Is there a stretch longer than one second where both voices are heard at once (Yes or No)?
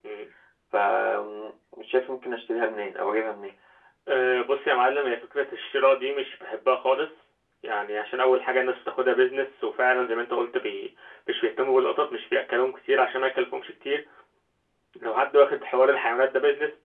No